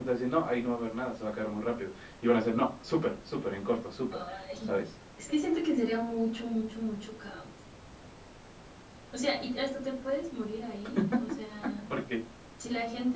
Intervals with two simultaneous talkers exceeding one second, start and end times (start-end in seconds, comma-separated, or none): none